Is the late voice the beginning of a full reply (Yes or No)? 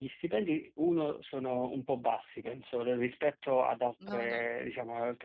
No